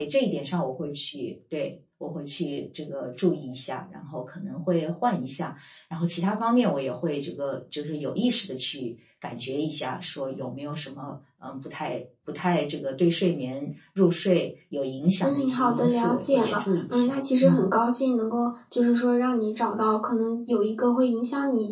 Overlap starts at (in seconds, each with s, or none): 15.2 s